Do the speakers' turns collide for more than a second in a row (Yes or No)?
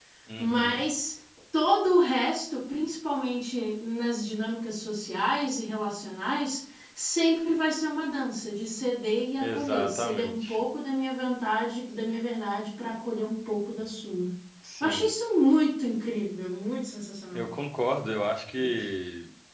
Yes